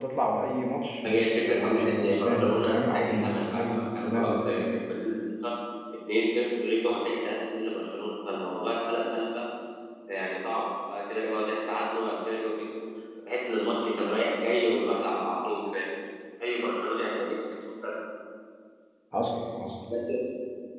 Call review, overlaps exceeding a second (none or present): present